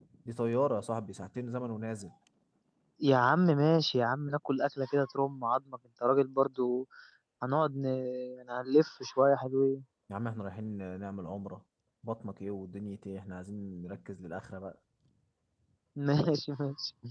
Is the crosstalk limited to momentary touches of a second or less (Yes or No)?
Yes